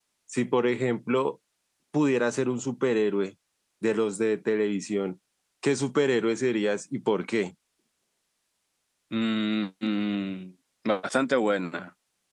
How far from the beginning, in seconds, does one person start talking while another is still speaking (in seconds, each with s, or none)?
none